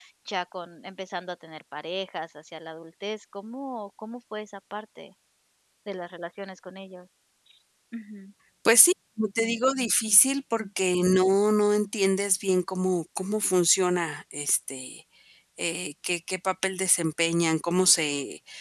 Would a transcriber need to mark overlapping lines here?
No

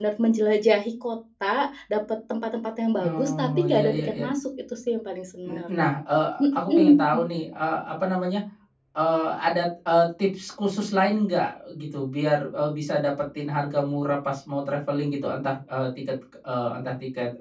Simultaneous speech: Yes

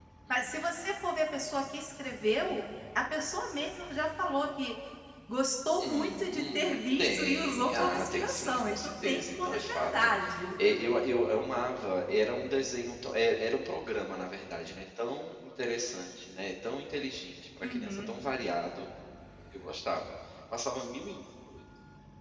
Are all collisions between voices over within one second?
No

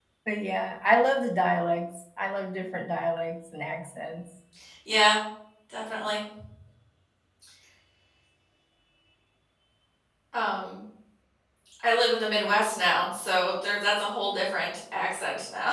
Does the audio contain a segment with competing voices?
No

